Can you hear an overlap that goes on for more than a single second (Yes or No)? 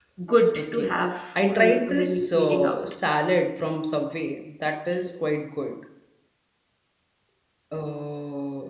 Yes